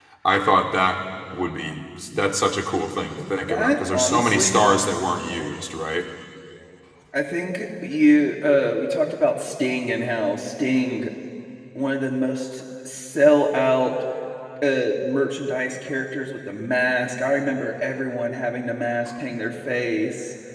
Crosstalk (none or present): present